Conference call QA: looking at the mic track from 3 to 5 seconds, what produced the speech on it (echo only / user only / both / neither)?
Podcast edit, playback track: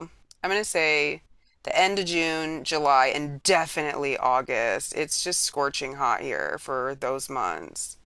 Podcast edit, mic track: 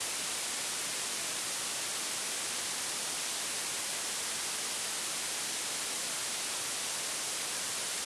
neither